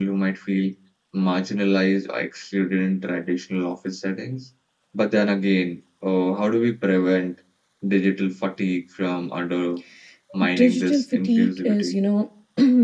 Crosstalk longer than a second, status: present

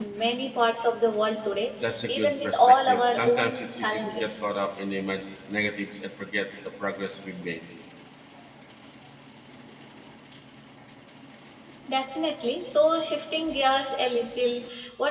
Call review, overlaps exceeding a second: present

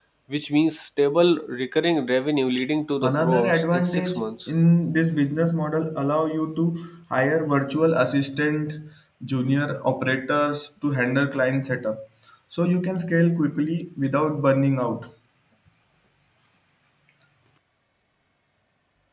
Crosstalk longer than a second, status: present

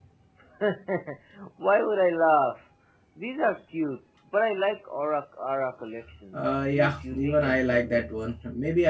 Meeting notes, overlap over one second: present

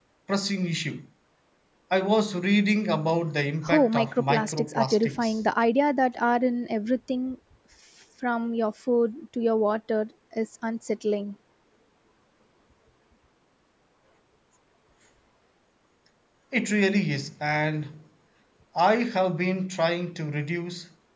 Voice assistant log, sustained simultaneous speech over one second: present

